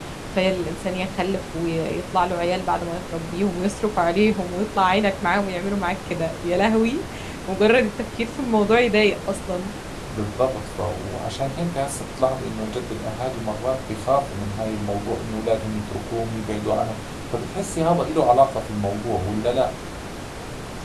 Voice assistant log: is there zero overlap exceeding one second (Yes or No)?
Yes